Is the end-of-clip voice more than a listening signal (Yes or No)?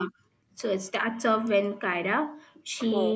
No